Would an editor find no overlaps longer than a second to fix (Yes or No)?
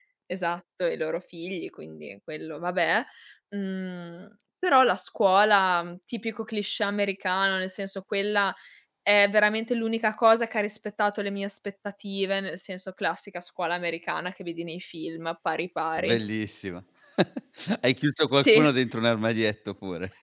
Yes